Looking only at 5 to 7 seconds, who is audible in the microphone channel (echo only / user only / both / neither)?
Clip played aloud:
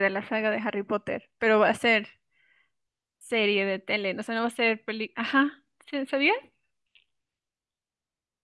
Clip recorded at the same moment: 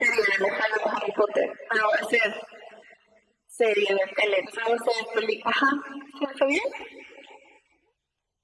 echo only